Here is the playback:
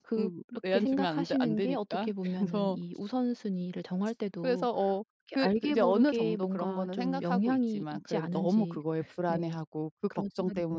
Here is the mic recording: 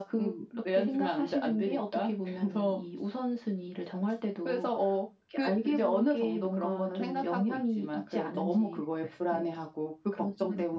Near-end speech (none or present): none